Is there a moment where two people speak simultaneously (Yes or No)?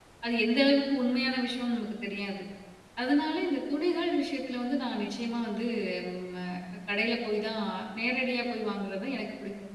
No